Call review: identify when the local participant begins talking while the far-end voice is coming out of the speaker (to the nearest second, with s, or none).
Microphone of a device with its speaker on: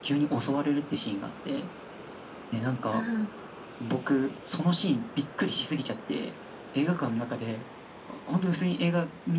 3 s